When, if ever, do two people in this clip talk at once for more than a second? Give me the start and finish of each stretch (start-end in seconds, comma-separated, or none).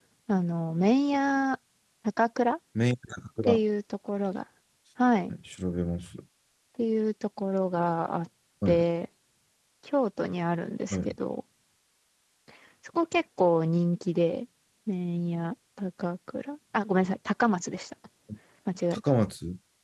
none